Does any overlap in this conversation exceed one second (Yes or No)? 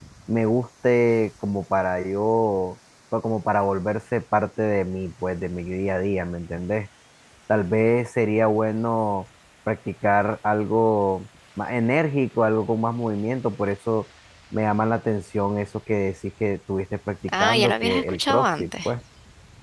Yes